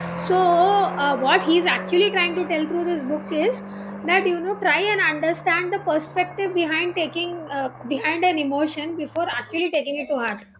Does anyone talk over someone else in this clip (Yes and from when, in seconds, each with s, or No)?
No